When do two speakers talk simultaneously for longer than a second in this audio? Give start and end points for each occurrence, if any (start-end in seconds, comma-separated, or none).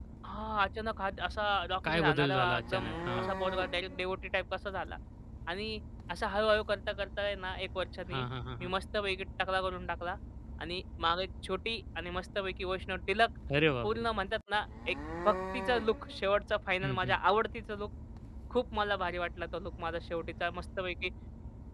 1.9-3.3